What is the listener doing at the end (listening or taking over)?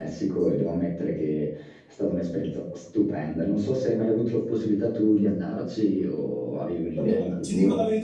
taking over